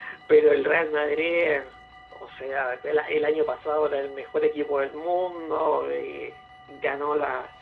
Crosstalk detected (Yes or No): No